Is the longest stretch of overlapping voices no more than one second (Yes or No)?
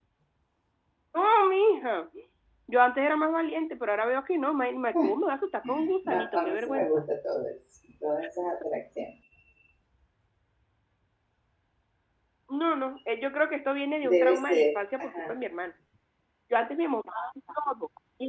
No